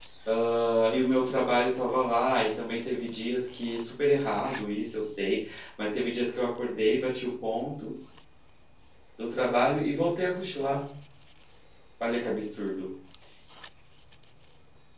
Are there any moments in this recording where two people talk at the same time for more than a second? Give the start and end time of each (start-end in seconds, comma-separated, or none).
none